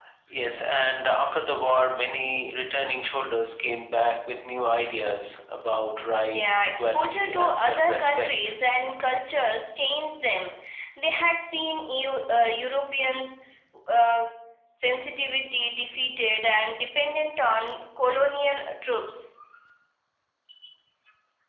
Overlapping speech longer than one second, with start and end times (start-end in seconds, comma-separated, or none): 6.3-8.3